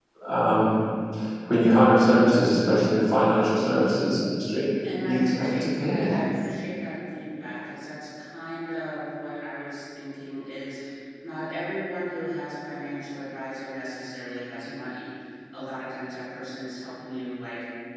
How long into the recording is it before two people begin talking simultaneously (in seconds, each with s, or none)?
4.8 s